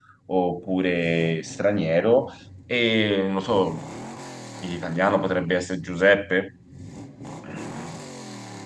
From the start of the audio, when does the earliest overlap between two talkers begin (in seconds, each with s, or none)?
none